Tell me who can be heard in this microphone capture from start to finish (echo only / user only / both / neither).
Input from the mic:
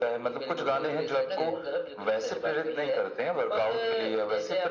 both